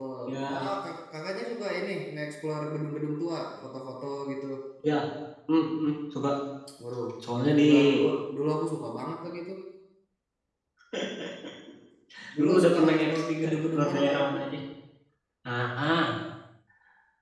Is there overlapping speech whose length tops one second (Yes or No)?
Yes